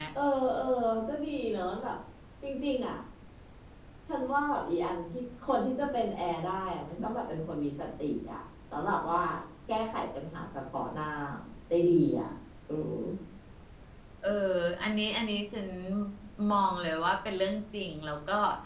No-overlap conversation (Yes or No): Yes